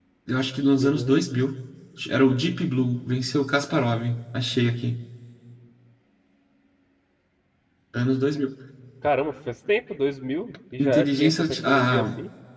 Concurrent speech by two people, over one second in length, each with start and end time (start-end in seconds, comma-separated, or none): 10.8-12.0